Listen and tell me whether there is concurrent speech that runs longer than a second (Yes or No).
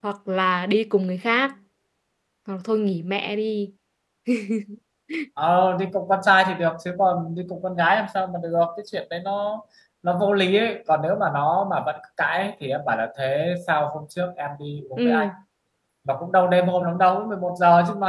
No